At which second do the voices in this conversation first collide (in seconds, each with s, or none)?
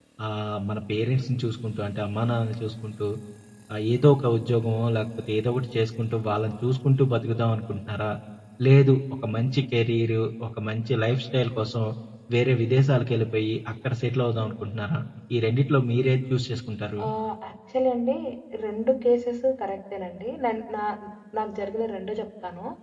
none